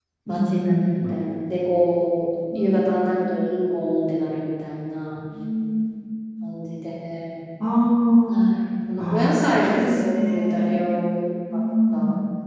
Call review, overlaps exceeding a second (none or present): present